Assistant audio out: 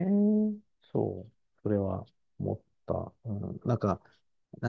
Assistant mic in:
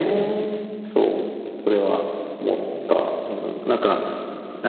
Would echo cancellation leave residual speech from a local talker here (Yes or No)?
No